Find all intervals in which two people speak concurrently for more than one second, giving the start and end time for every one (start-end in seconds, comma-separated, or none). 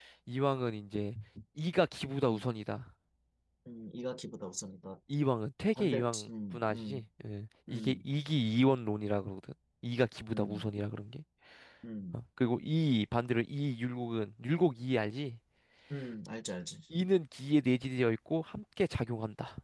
5.8-7.0